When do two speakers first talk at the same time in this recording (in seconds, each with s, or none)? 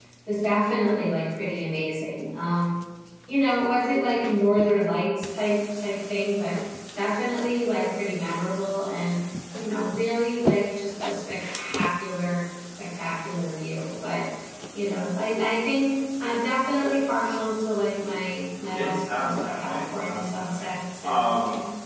18.7 s